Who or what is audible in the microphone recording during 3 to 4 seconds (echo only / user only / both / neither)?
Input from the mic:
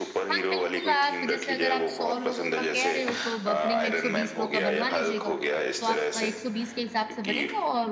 both